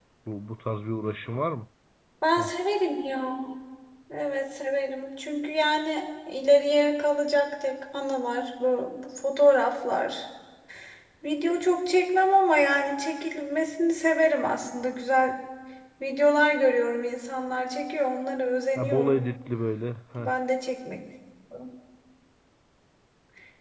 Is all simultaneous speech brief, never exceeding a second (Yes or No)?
Yes